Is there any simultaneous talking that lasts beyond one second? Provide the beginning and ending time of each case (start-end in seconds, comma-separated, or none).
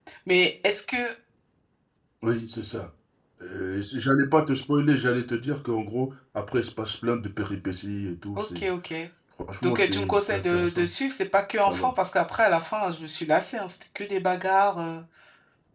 9.6-10.9